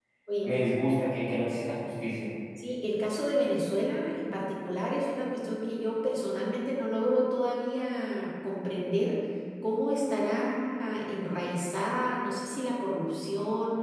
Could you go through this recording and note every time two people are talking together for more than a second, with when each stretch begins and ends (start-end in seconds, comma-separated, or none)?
none